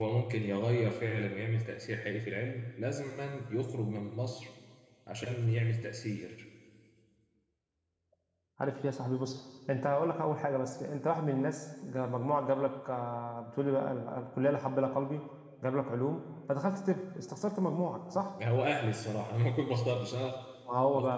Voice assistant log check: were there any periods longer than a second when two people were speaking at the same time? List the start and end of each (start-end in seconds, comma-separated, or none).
none